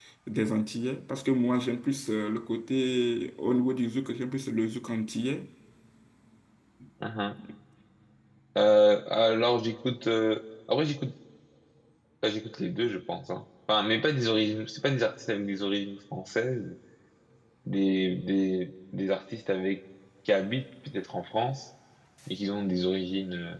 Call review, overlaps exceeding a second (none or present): none